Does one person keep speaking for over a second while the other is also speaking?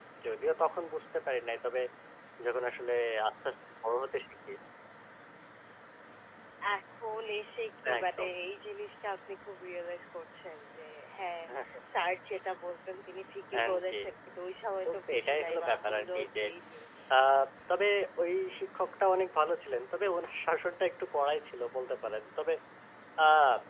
Yes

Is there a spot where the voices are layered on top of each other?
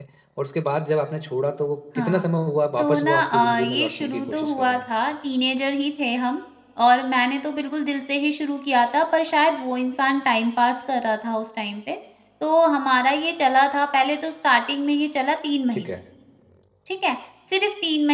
Yes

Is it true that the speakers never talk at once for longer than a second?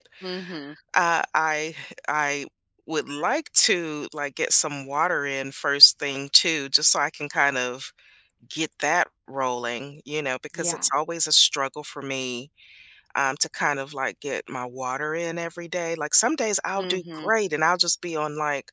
Yes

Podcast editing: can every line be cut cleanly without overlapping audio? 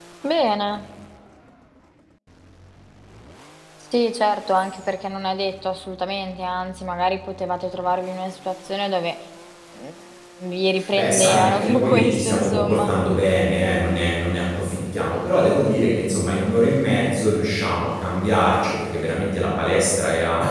No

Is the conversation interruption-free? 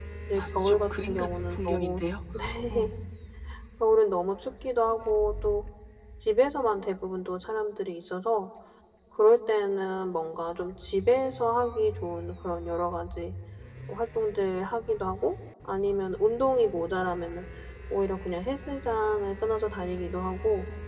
No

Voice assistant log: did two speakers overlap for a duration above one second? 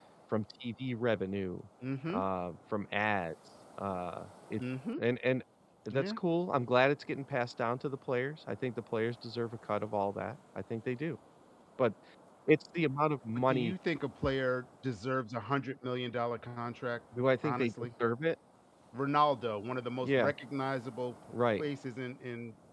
No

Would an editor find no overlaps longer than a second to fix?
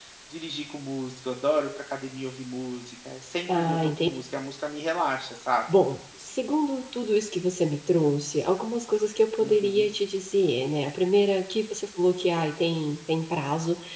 Yes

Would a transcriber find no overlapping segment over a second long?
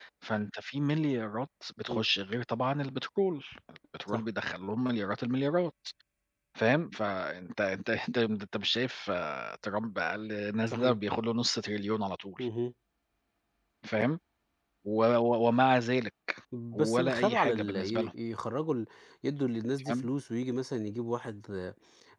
No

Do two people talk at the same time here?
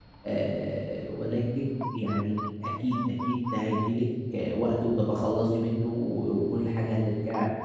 No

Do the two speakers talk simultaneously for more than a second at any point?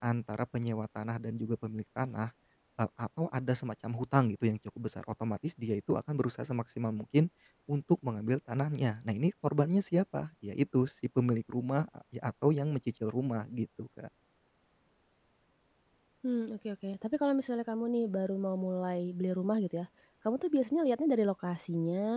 No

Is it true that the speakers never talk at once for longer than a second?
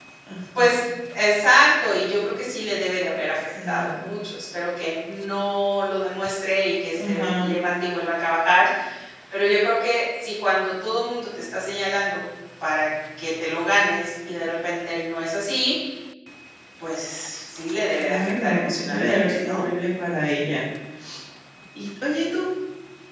No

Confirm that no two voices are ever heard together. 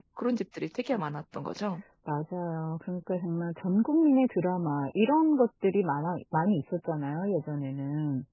Yes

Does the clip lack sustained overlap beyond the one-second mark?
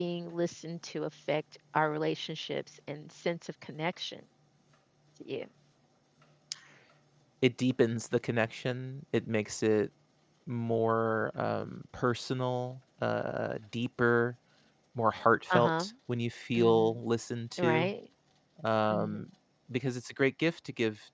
Yes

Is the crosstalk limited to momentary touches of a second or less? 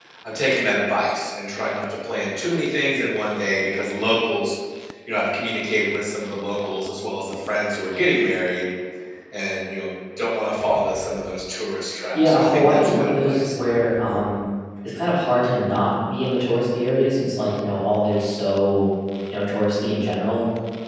No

